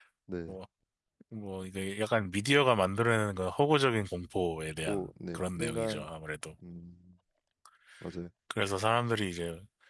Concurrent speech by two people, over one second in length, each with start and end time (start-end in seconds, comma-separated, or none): 4.8-6.0